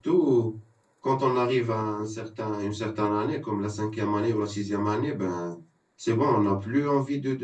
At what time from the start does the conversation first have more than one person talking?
none

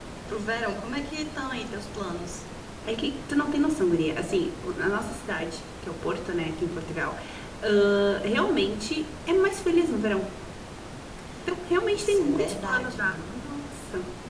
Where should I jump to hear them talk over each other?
11.9 s

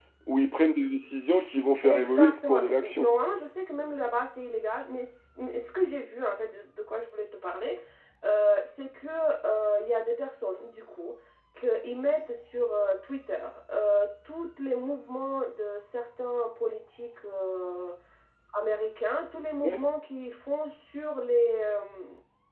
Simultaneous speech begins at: 1.8 s

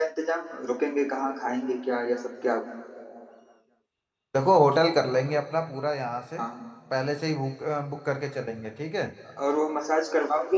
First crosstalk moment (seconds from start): none

